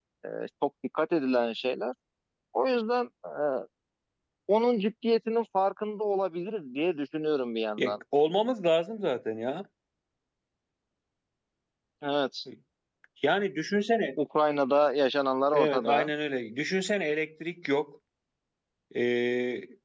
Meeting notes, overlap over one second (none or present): none